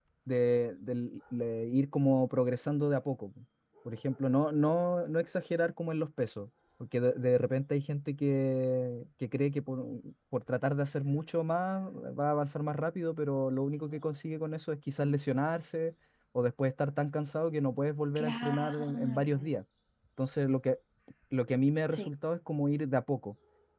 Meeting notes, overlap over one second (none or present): present